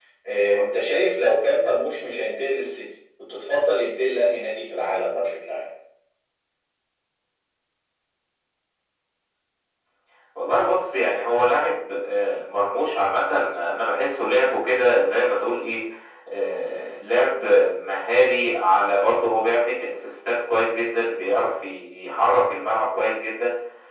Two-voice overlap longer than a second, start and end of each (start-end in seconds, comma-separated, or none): none